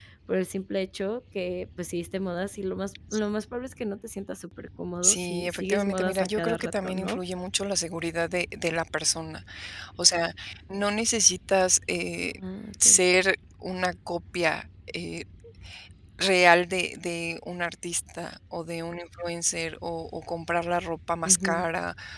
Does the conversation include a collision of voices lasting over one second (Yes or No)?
Yes